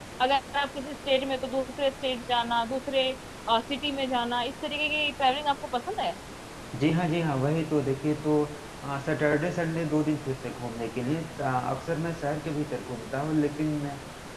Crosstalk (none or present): none